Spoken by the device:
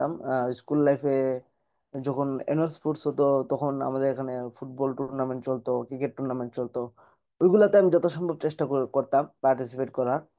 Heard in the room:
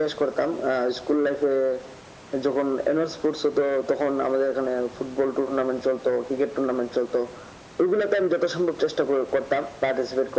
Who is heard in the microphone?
echo only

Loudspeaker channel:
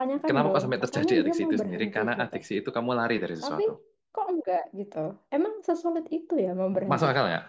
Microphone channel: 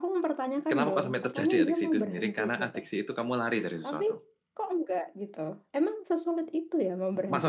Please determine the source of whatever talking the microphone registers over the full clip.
echo only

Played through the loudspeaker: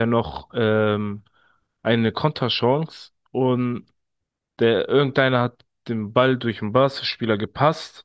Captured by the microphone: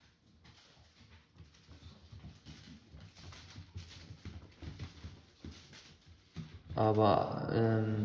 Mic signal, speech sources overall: user only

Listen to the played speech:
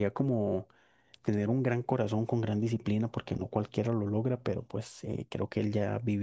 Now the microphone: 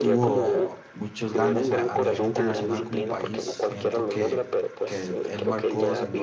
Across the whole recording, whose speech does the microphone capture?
both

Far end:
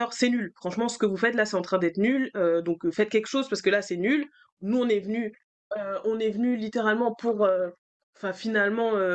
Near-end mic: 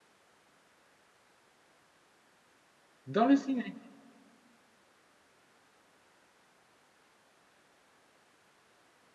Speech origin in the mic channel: user only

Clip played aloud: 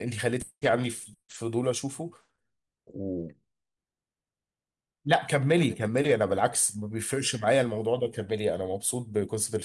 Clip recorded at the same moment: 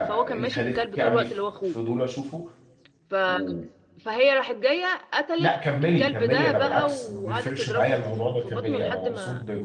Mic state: both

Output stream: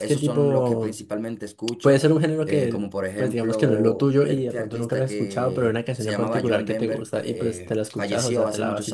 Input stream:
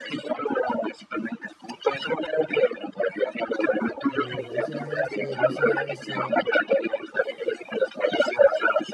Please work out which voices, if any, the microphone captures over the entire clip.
both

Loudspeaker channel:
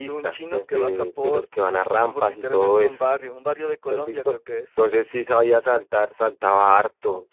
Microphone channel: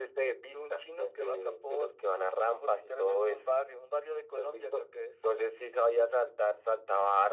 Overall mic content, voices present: echo only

